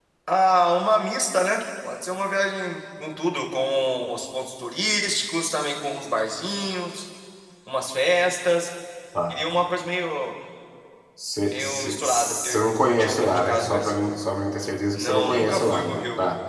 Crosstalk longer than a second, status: present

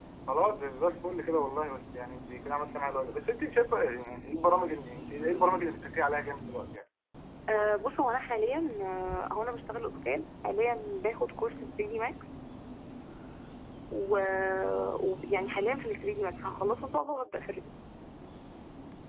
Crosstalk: none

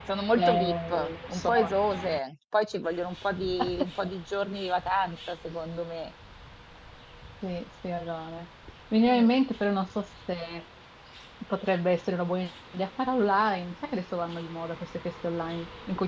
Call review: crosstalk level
present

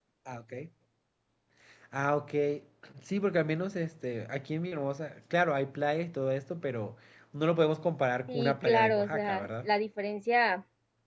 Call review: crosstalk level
present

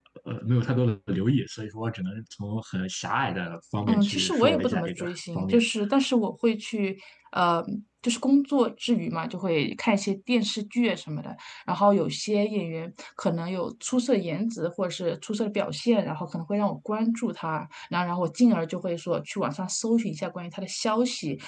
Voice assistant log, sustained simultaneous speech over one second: present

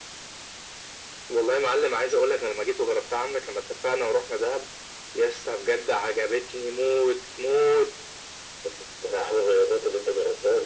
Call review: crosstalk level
none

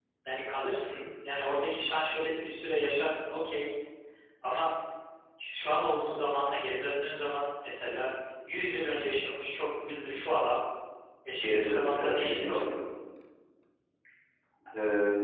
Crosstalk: present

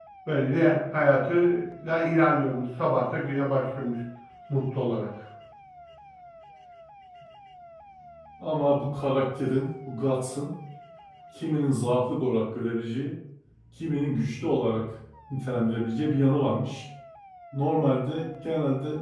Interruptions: none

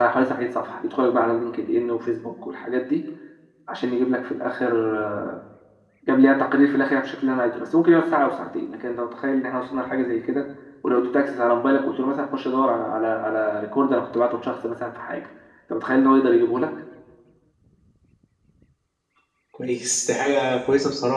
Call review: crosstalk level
none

